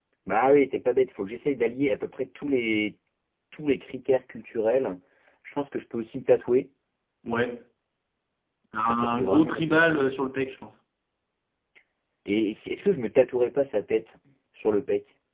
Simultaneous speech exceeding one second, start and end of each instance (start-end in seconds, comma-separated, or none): 8.8-10.1